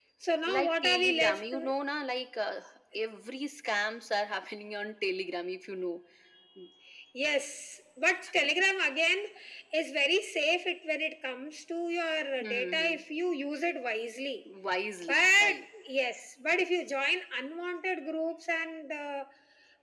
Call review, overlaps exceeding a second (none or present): present